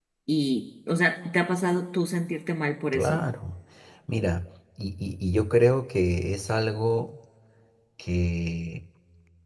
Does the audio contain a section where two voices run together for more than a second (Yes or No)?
No